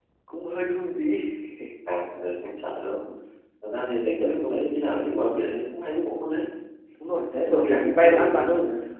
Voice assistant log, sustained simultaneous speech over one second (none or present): present